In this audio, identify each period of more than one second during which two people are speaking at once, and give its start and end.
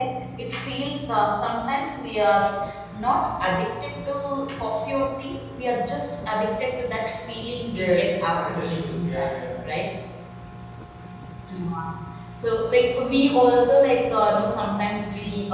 7.7-9.3

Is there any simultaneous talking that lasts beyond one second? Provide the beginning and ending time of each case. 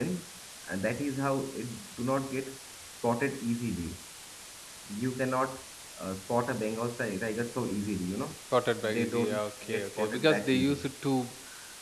8.8-10.9

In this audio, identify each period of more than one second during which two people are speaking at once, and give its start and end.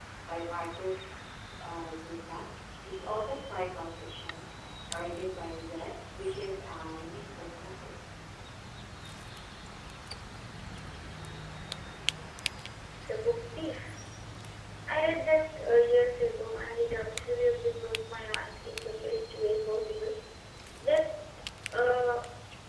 none

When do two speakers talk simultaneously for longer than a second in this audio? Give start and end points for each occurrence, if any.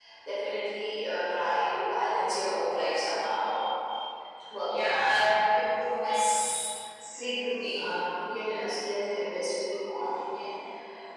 none

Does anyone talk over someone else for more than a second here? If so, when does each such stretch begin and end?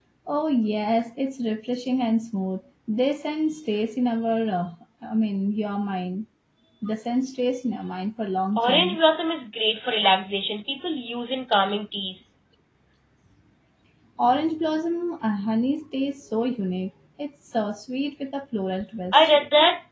none

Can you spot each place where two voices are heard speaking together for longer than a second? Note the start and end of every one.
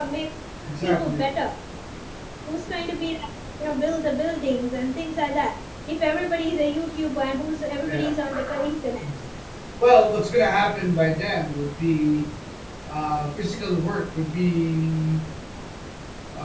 none

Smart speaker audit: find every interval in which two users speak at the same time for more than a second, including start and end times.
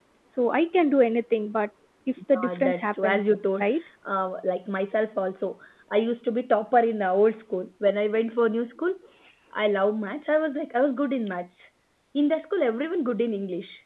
2.3-3.6

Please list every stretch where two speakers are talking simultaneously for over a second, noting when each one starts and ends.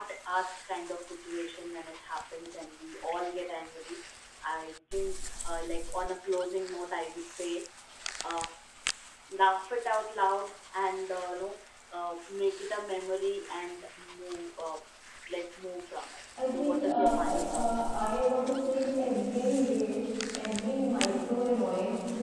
16.5-18.0

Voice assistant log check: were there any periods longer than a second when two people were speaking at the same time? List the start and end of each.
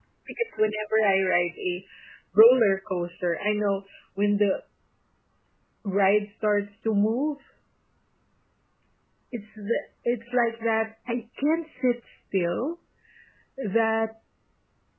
none

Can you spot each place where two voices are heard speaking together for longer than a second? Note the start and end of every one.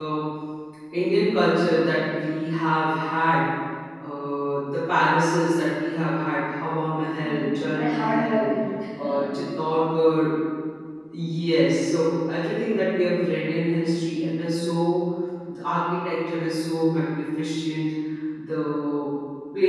7.2-8.4

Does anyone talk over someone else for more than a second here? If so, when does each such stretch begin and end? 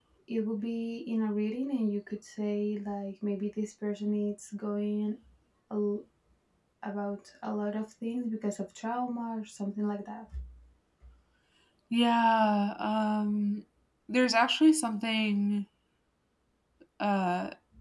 none

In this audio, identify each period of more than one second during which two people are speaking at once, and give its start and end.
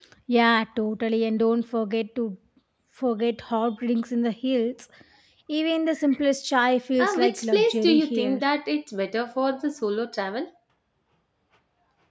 7.0-8.4

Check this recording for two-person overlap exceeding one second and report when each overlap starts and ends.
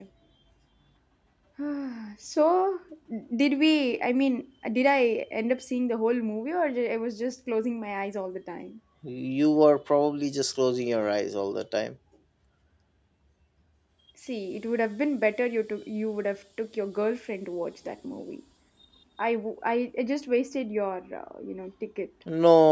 none

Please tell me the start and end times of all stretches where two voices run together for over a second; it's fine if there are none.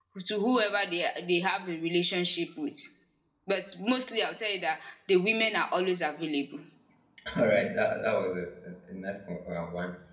none

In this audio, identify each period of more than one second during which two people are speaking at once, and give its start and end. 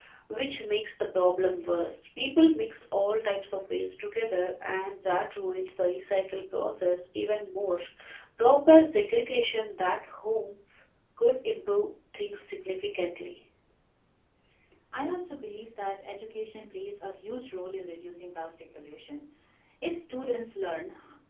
none

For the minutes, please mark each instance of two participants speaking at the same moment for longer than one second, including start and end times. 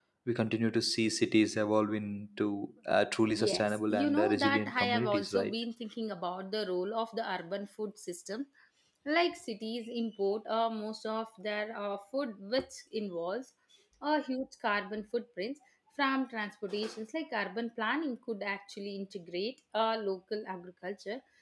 3.4-5.5

